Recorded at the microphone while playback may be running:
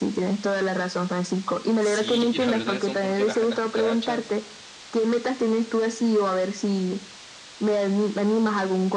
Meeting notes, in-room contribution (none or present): present